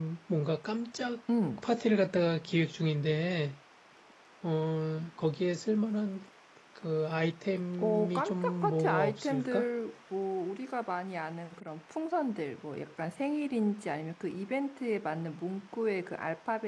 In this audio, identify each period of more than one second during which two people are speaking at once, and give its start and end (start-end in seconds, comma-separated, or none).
7.8-9.6